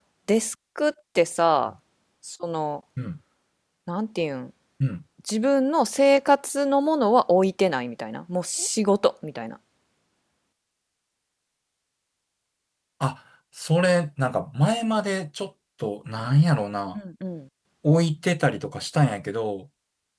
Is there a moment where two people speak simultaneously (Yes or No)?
No